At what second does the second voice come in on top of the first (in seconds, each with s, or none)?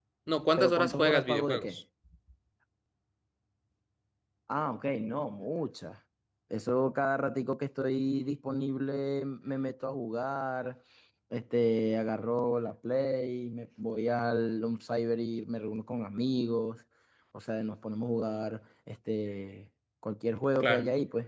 0.6 s